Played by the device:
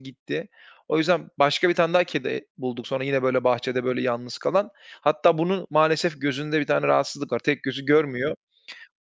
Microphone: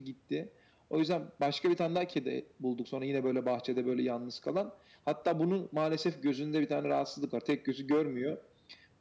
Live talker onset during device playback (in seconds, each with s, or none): none